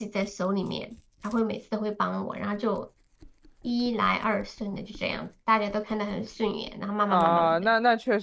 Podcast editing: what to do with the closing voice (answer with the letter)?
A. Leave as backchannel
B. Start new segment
B